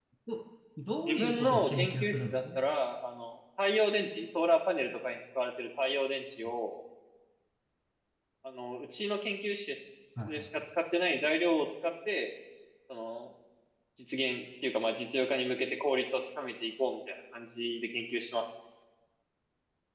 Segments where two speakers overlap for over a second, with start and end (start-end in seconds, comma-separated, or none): 1.1-2.6